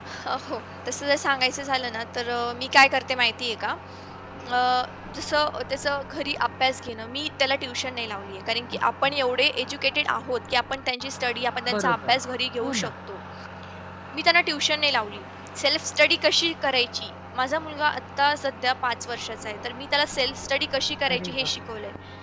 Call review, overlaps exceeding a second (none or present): none